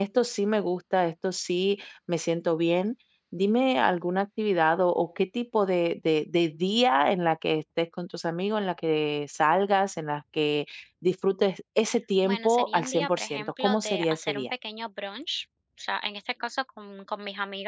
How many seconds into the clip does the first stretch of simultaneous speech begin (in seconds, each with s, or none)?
12.2 s